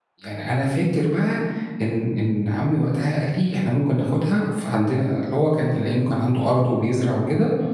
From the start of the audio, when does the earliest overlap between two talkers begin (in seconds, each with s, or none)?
none